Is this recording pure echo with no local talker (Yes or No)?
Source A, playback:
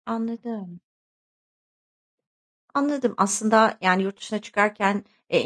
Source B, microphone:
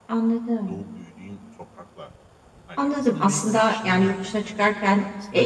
No